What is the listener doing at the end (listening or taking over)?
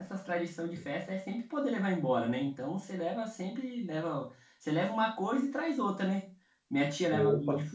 listening